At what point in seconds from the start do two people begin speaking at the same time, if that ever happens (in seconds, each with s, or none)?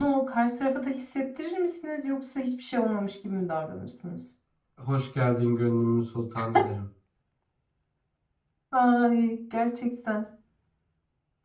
none